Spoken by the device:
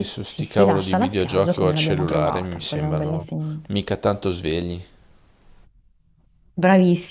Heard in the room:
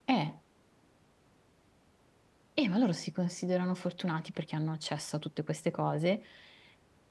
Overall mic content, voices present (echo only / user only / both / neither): user only